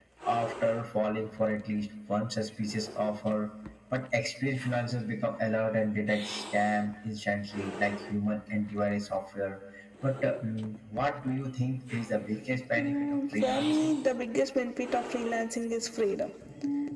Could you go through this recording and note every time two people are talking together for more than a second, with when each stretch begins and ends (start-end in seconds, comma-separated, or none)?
12.8-14.0